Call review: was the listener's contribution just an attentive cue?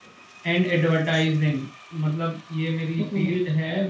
Yes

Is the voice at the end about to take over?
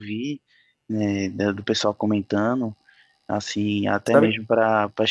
No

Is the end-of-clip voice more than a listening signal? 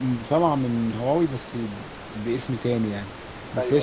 No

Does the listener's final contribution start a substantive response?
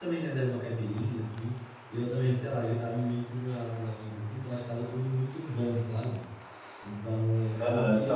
Yes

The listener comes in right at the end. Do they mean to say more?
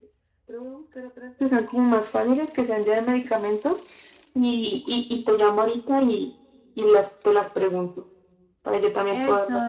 Yes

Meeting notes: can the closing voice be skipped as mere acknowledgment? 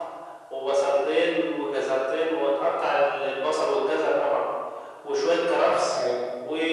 Yes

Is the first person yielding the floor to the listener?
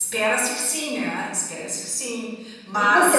Yes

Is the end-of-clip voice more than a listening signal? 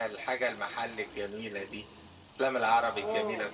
Yes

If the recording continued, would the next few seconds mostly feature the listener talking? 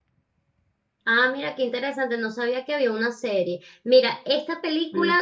No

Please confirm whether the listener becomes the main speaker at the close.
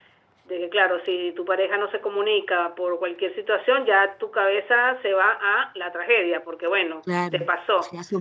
Yes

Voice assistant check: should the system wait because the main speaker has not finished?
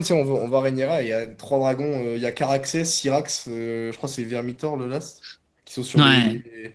Yes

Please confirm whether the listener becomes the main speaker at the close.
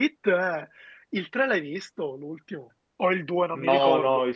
Yes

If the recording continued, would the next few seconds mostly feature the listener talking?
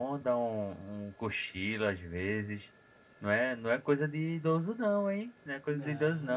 No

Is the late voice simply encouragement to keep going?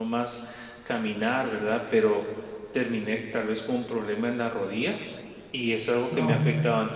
Yes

